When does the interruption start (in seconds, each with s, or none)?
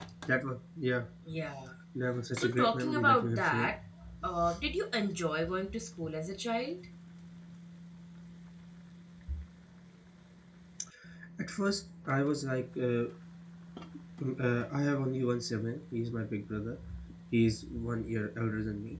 2.3 s